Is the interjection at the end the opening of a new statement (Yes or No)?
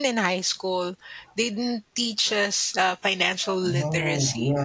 Yes